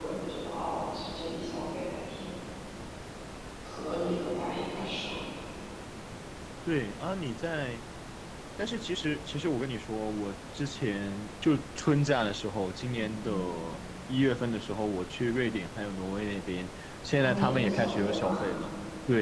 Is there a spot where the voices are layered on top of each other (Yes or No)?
Yes